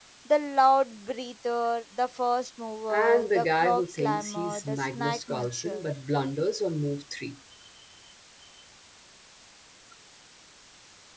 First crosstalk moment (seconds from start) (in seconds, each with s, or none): 2.9 s